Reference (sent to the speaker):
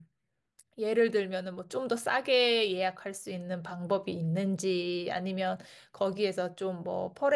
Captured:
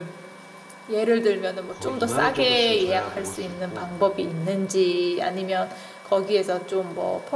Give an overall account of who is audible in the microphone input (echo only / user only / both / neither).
both